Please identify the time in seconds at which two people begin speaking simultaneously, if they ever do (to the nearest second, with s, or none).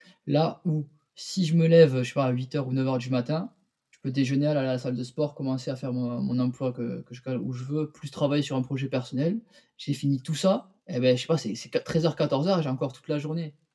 none